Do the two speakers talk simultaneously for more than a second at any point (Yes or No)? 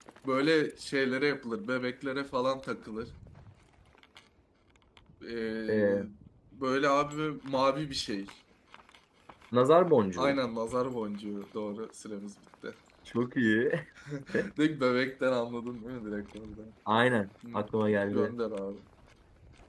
No